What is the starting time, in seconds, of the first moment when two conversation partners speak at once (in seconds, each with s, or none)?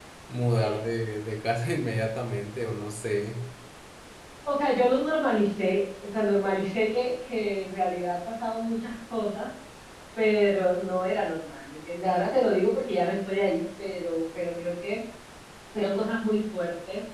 none